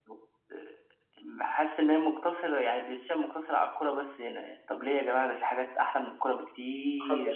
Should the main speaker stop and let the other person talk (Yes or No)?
Yes